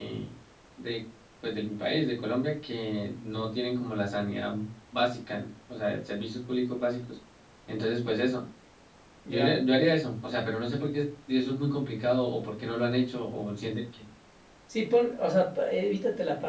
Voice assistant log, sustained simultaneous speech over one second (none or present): none